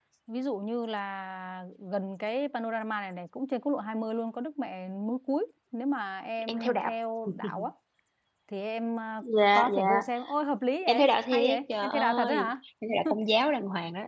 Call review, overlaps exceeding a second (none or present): present